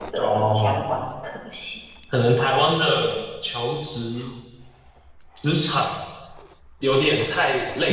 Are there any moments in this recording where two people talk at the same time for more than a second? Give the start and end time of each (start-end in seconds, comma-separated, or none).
none